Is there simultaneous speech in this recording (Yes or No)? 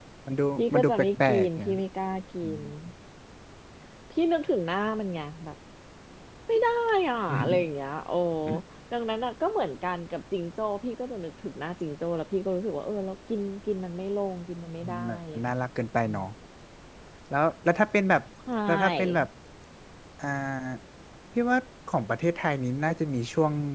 Yes